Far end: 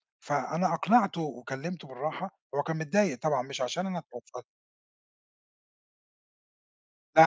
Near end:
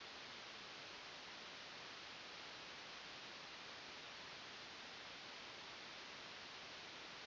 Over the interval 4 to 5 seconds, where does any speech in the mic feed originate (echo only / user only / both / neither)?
neither